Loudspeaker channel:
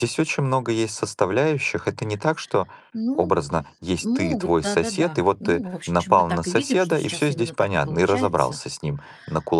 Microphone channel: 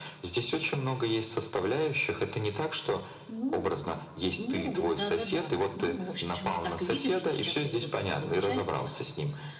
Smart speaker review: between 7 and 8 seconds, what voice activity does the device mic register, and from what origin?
echo only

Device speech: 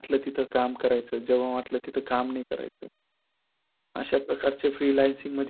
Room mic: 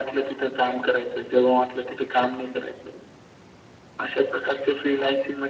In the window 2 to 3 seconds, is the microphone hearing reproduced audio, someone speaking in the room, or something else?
echo only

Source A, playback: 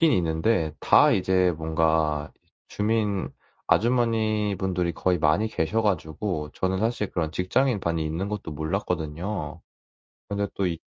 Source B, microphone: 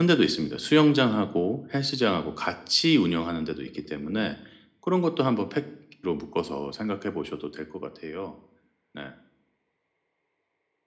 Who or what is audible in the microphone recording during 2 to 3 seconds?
user only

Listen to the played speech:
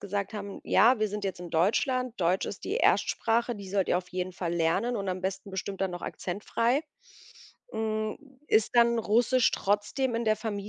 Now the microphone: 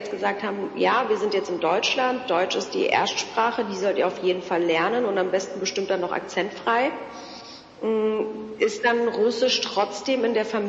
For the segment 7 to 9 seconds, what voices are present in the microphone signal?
echo only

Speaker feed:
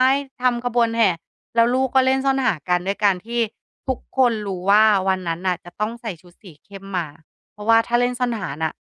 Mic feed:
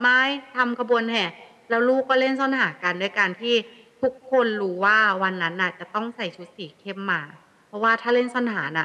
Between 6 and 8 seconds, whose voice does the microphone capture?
echo only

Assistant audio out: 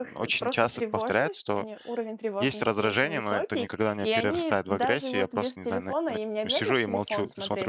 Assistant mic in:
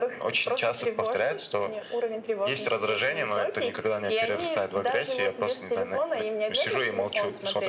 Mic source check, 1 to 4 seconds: echo only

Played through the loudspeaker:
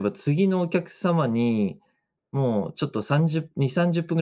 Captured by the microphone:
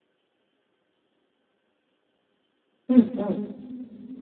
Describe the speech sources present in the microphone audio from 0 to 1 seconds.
neither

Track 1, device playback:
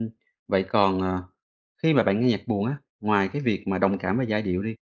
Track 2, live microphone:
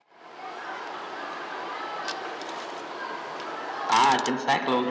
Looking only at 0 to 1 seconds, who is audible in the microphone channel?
neither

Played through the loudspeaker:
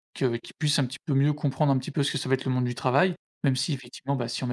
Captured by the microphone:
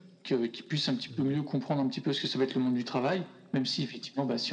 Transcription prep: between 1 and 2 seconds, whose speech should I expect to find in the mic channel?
both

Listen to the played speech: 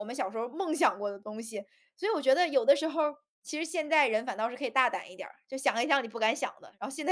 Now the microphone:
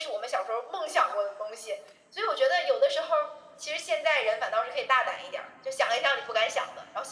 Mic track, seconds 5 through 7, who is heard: echo only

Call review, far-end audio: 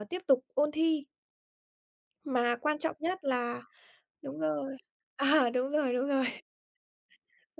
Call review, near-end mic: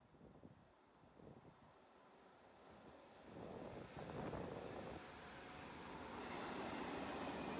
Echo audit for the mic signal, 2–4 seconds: neither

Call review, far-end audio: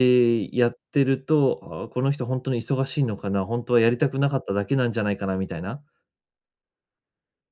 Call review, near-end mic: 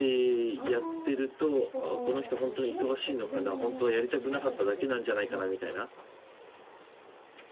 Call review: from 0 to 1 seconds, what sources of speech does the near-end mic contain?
both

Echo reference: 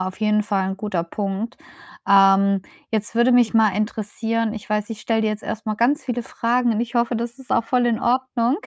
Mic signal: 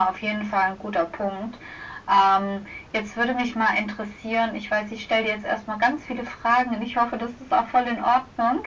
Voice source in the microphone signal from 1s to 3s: echo only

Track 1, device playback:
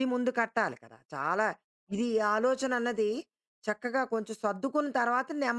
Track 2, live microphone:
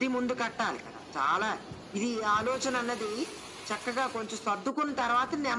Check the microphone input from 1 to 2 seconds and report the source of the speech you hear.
echo only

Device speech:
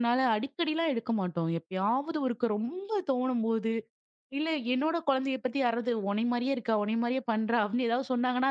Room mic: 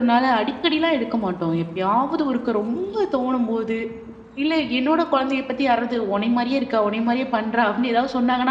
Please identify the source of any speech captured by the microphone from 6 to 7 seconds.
echo only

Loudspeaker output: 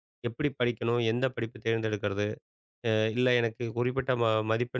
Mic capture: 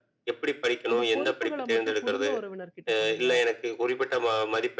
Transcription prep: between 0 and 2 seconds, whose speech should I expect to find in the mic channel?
both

